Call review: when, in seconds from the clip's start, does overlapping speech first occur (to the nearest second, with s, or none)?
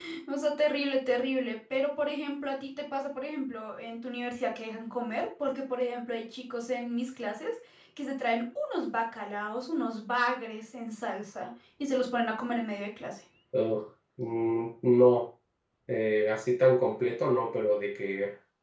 none